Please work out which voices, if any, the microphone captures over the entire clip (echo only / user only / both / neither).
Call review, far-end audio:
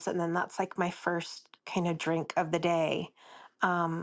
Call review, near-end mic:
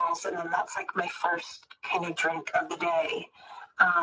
echo only